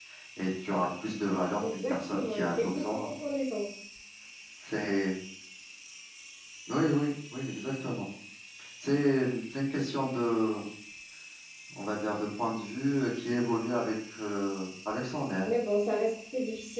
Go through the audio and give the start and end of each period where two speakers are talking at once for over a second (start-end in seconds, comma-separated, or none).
1.6-3.1